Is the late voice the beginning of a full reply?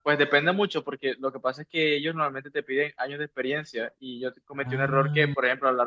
No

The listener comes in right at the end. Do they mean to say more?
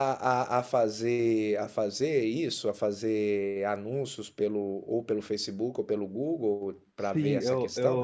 Yes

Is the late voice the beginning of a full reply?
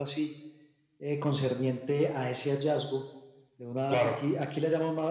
No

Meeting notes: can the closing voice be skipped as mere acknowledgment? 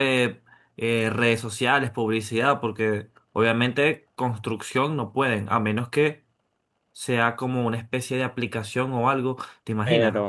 No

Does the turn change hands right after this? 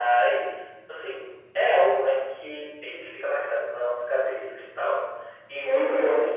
No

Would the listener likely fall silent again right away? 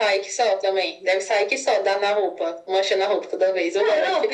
No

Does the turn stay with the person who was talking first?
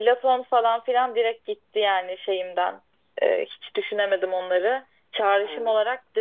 Yes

